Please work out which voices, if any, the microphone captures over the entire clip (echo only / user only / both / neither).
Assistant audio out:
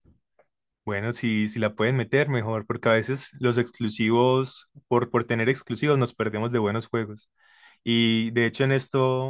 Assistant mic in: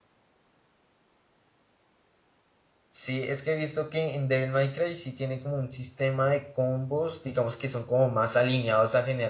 user only